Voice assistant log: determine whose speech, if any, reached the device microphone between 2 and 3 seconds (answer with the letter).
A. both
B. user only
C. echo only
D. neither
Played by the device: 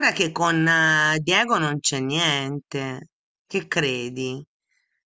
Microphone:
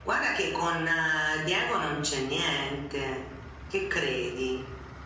C